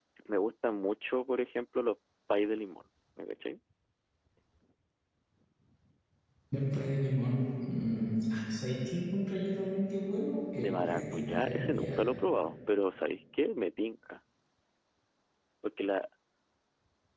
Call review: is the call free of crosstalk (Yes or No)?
No